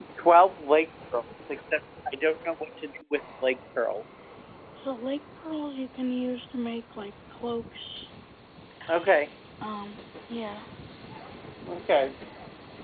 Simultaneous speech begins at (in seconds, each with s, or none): none